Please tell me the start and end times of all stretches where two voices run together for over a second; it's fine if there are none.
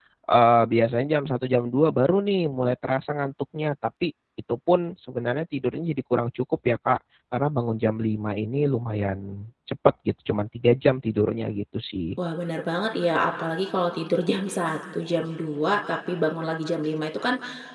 none

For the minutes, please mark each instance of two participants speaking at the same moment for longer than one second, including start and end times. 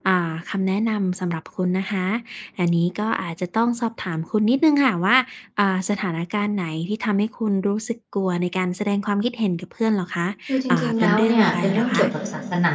10.7-12.1

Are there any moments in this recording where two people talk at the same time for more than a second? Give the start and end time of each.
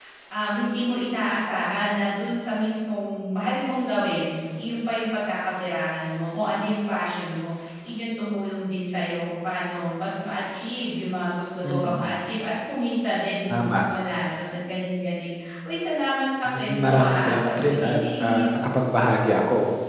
16.4-18.6

